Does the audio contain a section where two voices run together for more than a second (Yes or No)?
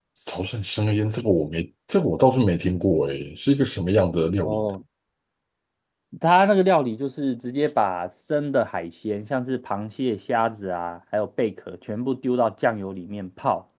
No